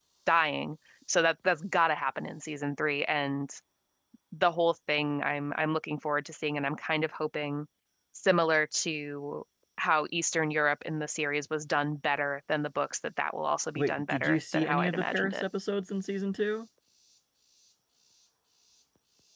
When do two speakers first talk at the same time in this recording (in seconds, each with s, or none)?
13.8 s